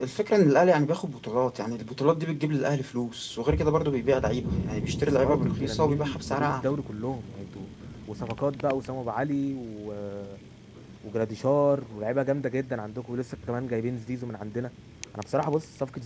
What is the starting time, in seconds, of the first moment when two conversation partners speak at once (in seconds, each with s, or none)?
5.1 s